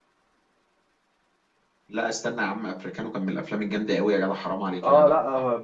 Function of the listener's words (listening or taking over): taking over